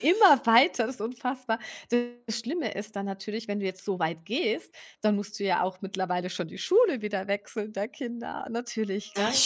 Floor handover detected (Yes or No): No